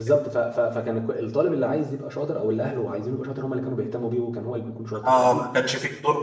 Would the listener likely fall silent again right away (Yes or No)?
No